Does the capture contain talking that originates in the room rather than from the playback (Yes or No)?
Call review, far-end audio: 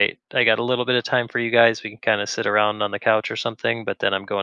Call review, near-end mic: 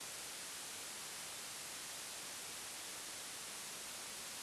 No